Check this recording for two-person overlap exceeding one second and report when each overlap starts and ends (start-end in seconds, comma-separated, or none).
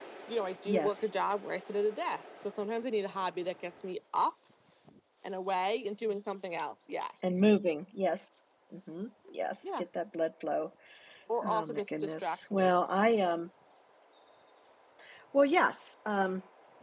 11.4-12.7